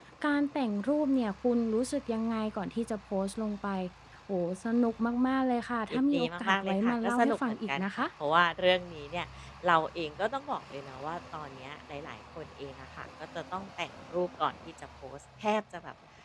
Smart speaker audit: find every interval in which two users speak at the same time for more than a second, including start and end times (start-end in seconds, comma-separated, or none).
5.9-8.1